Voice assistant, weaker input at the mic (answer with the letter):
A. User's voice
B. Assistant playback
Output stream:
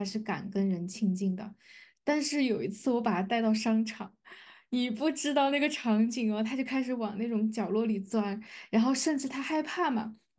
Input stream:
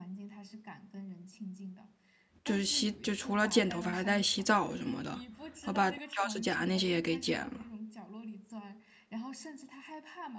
B